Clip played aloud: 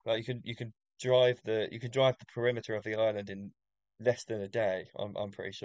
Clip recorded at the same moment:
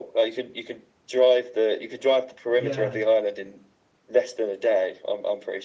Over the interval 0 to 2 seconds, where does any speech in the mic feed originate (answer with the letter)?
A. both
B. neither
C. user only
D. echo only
D